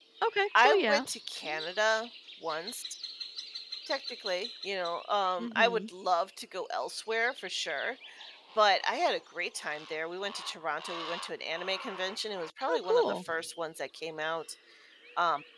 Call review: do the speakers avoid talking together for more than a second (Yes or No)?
Yes